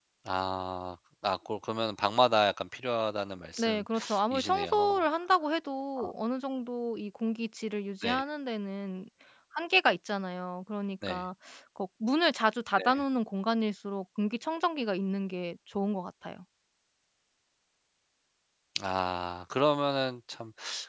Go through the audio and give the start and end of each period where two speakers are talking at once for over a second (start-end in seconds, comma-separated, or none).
3.6-5.0